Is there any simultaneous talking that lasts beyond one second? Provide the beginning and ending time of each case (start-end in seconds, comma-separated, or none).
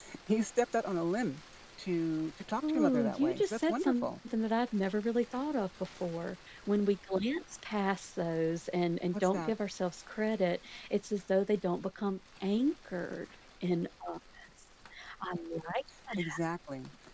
2.7-4.1